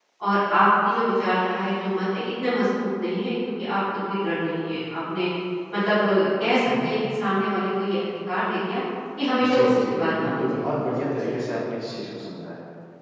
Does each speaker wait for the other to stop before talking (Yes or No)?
No